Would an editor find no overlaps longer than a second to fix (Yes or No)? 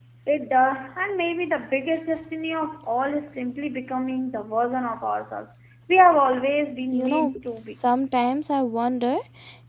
Yes